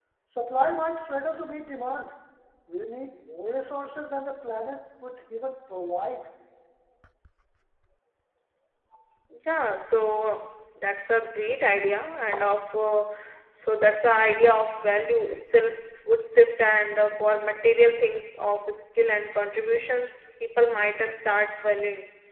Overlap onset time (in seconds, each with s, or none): none